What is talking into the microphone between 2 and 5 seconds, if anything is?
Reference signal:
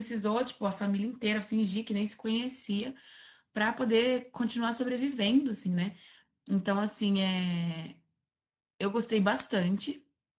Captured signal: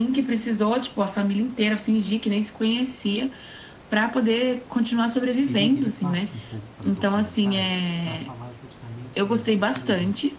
echo only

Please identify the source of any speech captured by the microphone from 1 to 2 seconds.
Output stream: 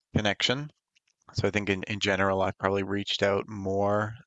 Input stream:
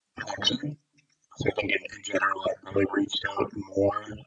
echo only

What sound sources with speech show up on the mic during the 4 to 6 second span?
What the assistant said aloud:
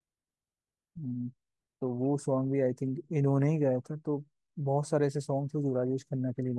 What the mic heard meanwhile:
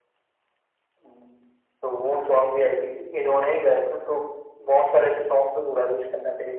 echo only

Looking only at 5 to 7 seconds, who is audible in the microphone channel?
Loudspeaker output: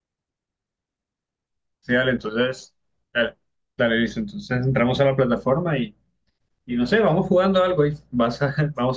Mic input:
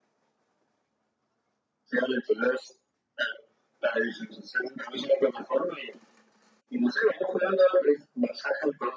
echo only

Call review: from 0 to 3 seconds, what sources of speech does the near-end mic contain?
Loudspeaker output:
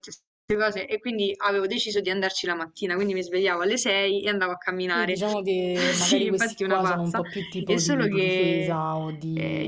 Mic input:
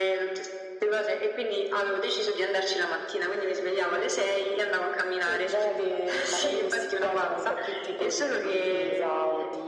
echo only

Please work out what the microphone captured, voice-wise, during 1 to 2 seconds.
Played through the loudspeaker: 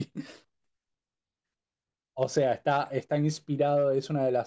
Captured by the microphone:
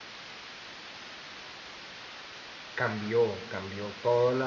neither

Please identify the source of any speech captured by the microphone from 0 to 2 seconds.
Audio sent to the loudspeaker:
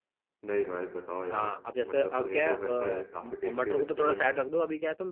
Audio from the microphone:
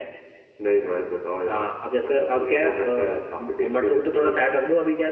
echo only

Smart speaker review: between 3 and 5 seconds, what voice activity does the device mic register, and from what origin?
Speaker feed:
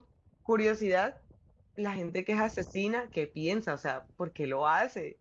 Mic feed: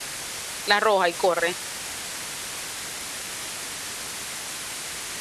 neither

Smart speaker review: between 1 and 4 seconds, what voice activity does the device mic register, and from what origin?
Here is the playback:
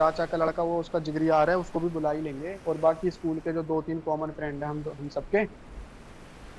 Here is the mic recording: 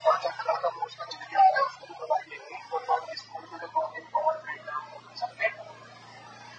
echo only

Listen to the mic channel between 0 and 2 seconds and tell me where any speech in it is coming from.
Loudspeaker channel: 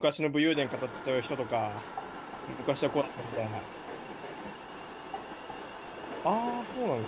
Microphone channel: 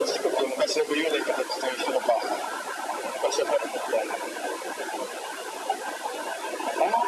echo only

